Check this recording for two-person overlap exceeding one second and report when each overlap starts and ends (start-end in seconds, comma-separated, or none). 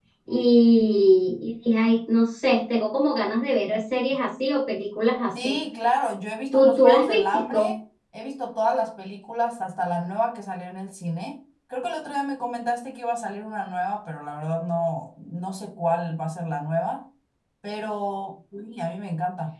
6.5-7.8